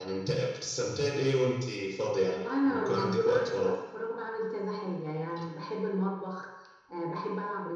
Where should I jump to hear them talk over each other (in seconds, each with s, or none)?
2.3 s